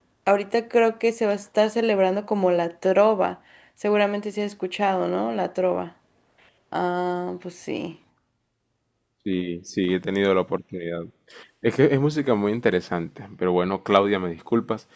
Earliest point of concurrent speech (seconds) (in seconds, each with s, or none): none